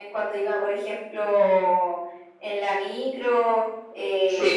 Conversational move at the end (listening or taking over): listening